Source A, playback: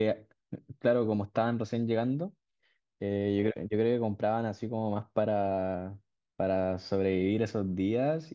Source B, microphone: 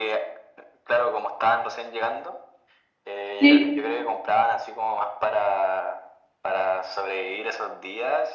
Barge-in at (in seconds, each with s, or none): 3.4 s